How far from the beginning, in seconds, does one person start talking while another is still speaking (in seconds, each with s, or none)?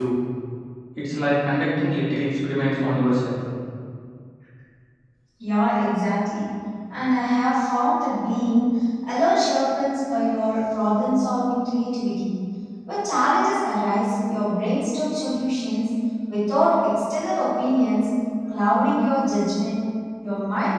none